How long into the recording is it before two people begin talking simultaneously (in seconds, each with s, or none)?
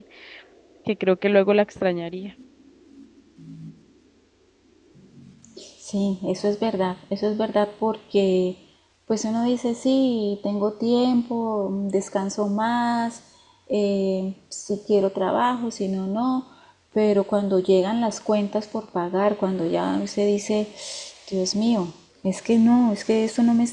none